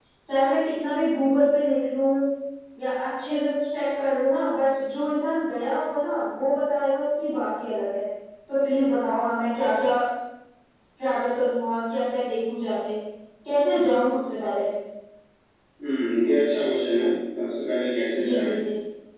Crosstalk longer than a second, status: none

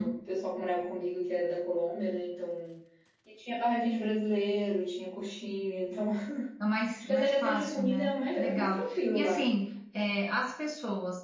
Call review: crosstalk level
present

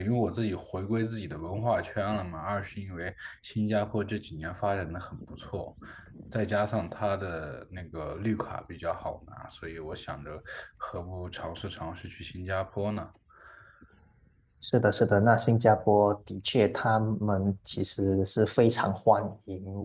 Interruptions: none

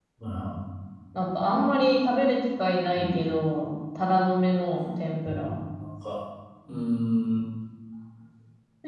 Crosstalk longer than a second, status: none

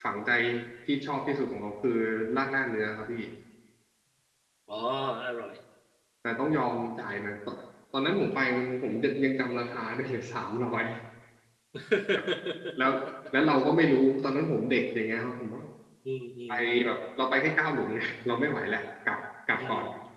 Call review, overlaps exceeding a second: none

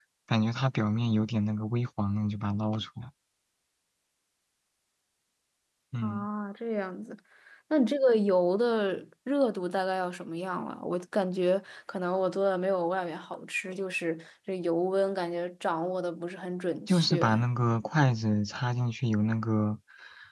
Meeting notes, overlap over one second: none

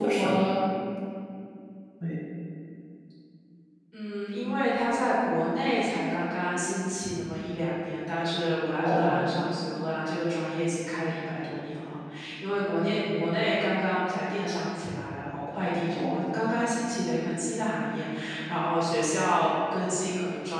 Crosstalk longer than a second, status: none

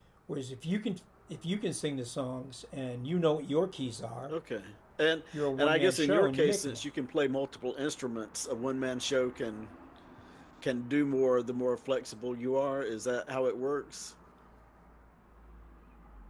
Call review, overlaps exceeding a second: present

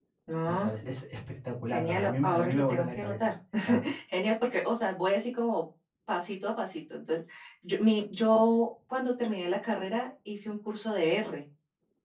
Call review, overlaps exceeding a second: present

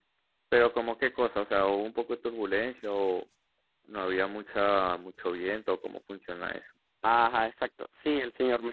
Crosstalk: none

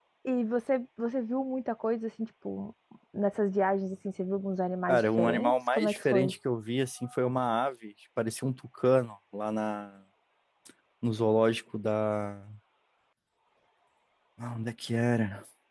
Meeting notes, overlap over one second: present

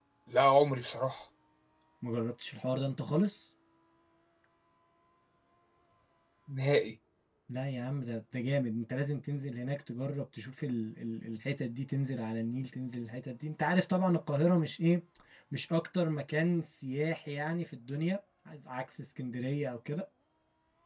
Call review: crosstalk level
none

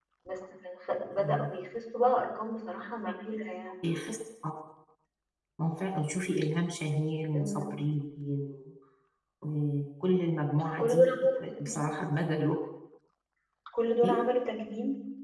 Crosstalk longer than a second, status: present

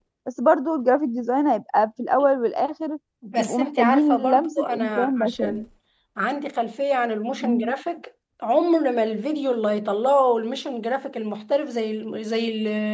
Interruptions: present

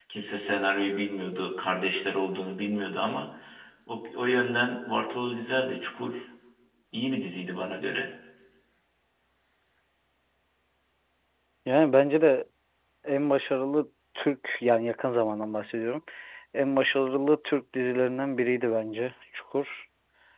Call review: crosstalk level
none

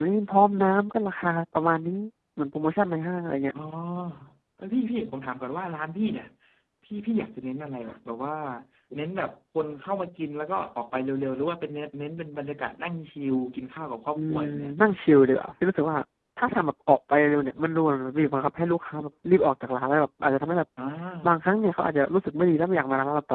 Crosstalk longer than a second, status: none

